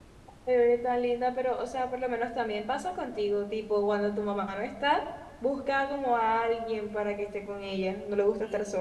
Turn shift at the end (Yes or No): Yes